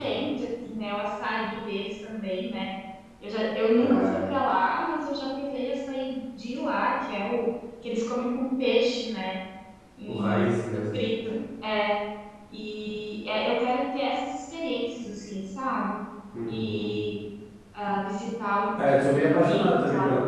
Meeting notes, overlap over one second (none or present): present